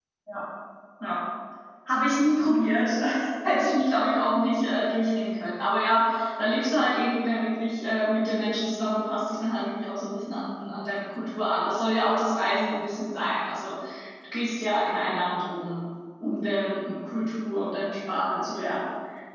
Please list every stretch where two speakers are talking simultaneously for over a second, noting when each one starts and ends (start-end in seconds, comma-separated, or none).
none